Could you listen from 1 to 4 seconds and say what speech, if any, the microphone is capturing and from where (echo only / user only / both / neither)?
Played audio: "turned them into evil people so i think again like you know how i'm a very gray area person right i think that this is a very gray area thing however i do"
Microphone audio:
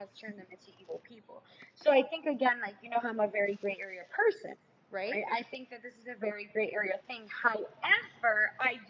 echo only